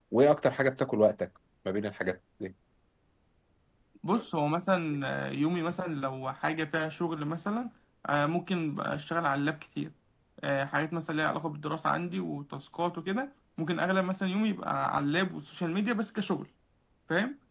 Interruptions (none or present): none